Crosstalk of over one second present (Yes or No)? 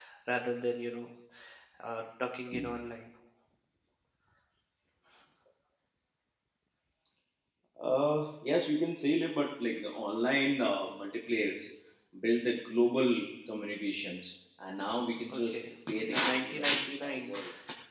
Yes